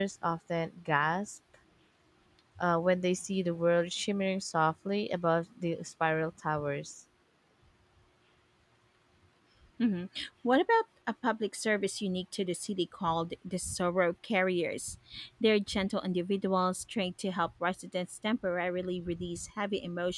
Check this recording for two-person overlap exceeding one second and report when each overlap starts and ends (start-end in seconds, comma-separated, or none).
none